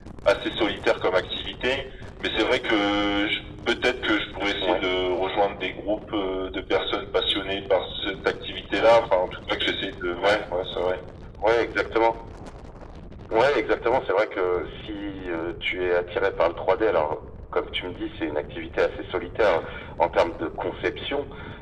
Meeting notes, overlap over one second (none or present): none